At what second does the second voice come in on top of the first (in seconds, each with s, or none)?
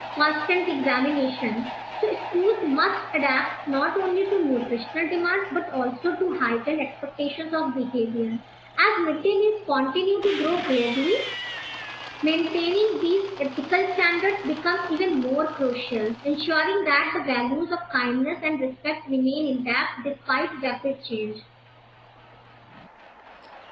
none